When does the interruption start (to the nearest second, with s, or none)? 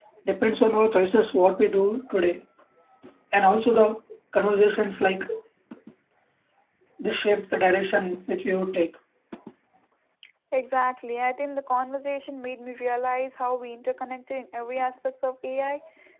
none